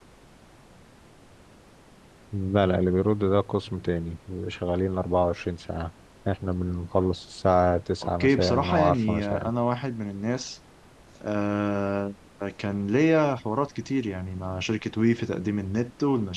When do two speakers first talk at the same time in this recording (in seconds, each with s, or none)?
8.2 s